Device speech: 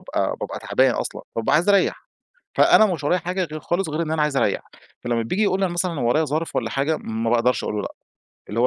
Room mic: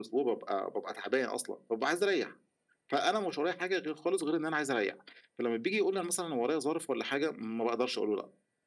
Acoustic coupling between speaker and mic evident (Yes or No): Yes